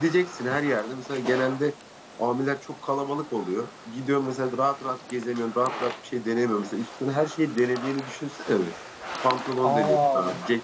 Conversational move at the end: listening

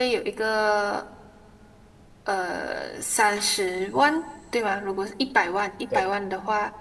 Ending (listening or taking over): listening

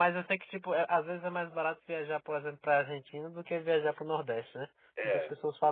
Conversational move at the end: taking over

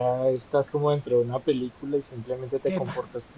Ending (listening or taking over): listening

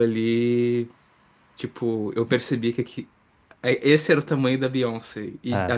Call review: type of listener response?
listening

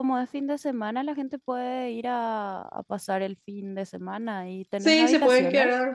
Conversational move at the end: taking over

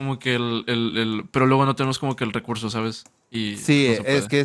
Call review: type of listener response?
taking over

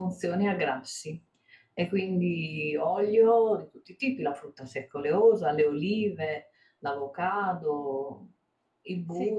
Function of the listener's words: taking over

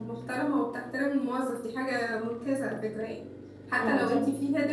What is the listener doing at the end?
listening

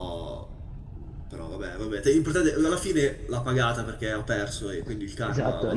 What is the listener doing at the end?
taking over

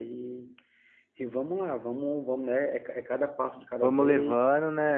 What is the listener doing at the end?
taking over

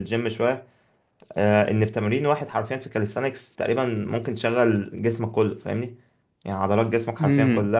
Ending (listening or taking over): listening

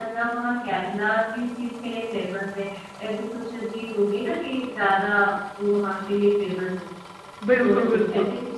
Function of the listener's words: taking over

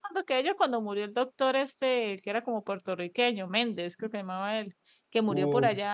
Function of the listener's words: listening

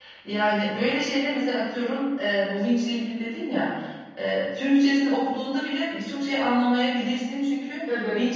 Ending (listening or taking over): listening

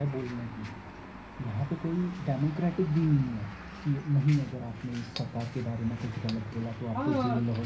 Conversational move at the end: taking over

